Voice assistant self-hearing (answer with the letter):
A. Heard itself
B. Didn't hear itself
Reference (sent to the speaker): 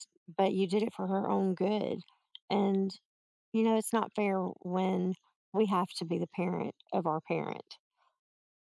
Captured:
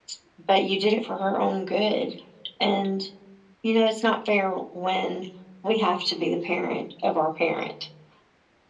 A